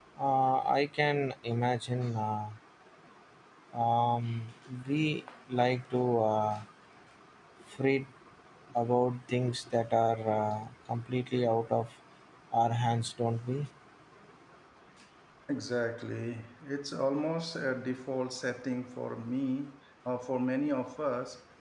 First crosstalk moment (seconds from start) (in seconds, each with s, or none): none